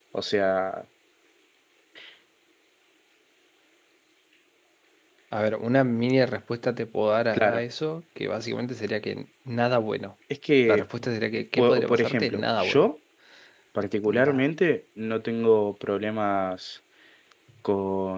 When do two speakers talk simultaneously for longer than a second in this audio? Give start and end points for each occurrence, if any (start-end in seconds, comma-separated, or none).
11.6-12.9